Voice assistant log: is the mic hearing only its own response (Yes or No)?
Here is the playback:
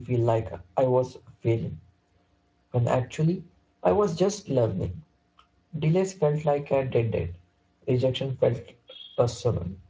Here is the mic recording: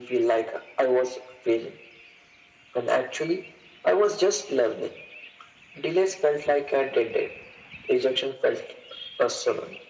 Yes